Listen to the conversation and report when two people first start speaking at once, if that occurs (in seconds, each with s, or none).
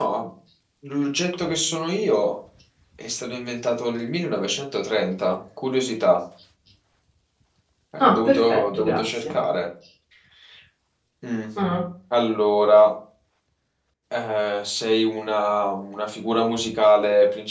8.0 s